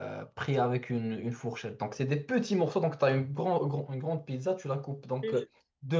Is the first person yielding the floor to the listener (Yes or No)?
No